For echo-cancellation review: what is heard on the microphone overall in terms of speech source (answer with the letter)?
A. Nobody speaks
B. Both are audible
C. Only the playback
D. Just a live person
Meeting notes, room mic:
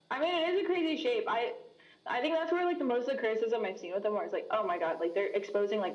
C